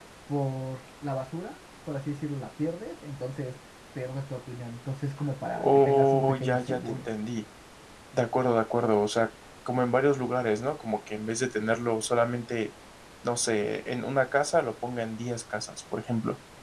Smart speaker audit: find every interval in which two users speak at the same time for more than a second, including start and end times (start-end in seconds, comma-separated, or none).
5.6-7.0